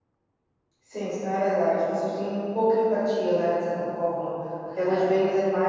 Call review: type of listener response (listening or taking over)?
listening